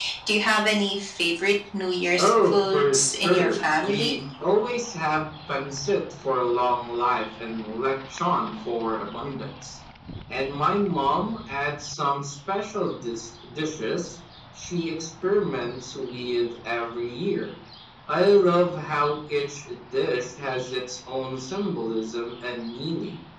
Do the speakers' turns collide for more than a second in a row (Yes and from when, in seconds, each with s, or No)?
Yes, from 2.2 s